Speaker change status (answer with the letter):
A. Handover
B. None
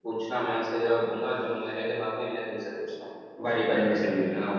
A